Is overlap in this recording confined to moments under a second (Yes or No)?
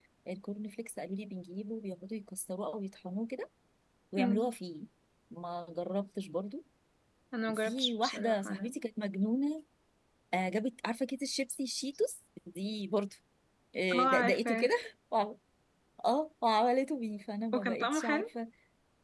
No